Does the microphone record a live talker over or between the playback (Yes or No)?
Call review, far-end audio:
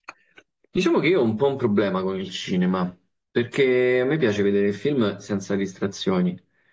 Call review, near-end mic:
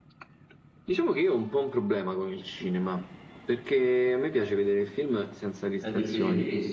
Yes